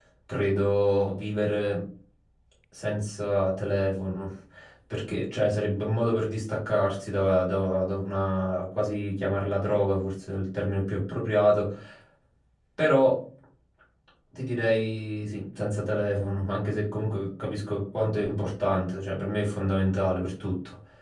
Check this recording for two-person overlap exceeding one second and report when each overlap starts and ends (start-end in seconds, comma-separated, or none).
none